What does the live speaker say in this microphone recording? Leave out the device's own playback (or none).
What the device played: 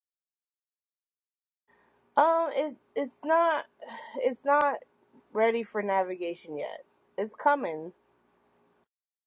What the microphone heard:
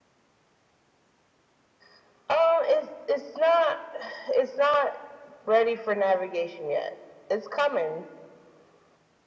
none